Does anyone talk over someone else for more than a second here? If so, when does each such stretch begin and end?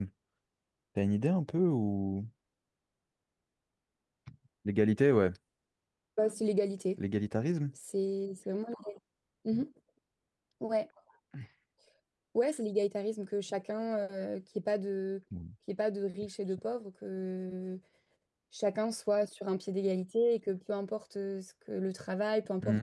none

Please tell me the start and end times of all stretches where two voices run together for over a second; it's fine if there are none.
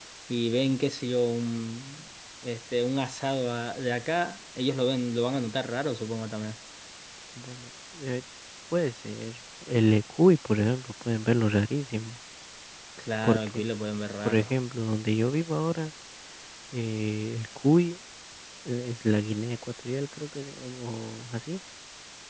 none

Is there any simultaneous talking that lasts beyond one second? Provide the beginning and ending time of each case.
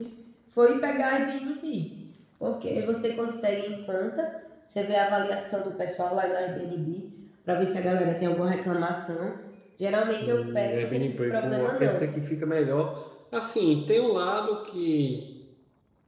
10.2-12.0

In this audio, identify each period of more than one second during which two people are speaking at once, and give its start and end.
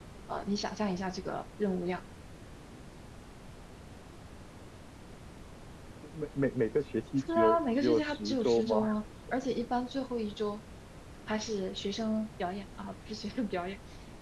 7.2-8.8

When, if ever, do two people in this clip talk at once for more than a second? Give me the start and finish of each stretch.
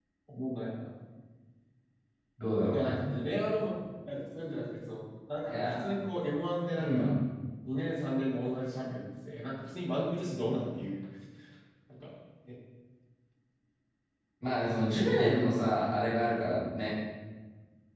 none

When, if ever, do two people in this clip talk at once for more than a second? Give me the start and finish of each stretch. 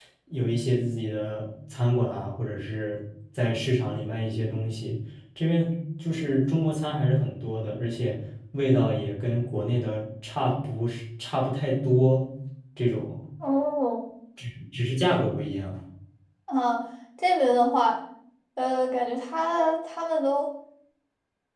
none

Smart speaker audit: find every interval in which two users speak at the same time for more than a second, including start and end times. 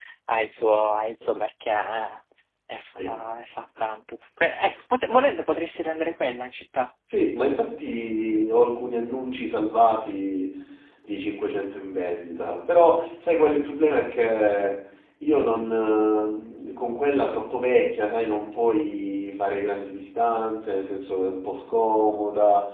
none

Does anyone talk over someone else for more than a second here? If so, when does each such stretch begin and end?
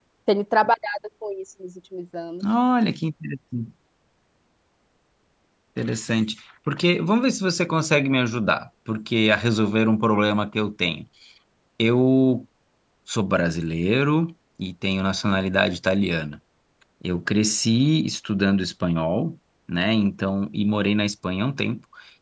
none

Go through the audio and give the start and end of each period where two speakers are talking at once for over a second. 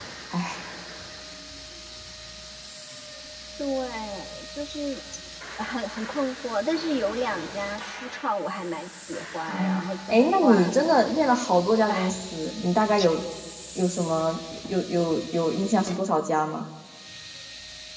9.6-10.9

